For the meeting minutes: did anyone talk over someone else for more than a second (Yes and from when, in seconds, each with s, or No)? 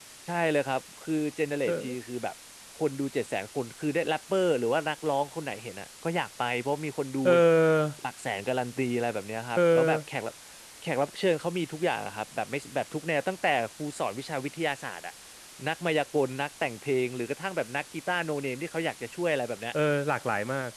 No